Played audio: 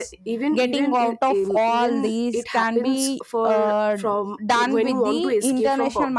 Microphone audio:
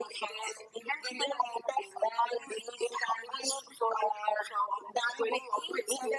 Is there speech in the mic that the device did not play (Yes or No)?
No